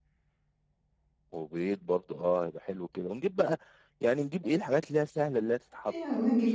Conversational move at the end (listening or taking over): taking over